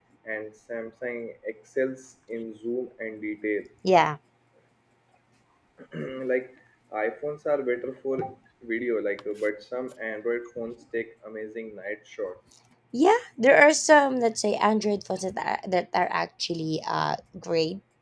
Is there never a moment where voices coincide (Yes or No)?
Yes